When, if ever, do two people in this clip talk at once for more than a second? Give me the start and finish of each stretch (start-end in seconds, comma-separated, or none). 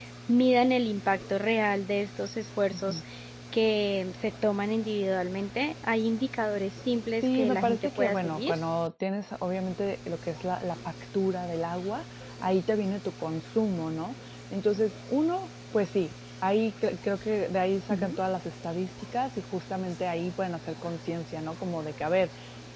7.2-8.5